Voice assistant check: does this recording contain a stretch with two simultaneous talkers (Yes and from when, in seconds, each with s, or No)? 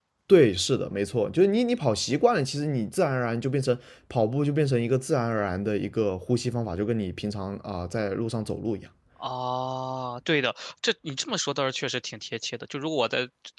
No